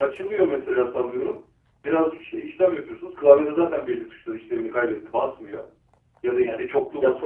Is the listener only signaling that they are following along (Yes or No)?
No